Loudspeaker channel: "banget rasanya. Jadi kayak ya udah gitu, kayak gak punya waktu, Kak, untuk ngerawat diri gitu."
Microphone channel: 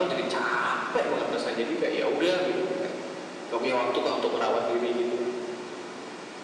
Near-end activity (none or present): none